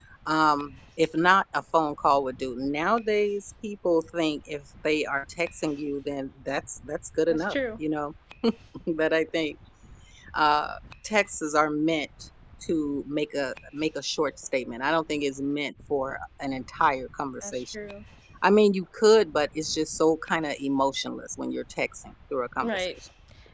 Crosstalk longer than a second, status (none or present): none